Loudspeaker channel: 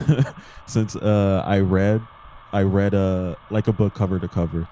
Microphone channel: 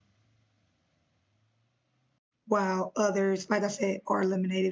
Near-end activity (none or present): present